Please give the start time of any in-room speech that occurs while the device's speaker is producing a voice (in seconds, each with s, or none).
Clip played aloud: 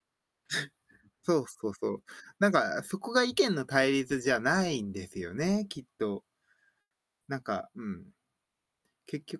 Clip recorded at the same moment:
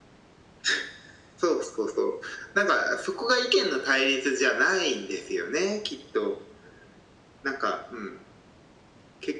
none